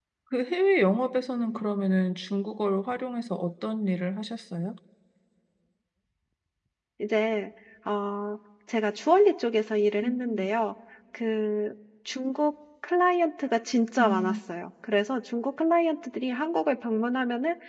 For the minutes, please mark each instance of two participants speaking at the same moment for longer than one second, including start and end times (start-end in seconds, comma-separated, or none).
none